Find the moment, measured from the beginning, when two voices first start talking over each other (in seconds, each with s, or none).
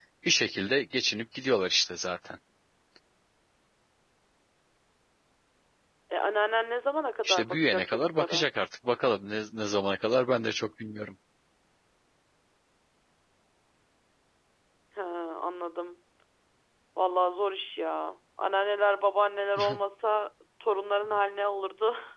7.2 s